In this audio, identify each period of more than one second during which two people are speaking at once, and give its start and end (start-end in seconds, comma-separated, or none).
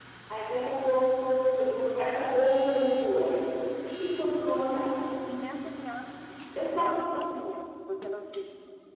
none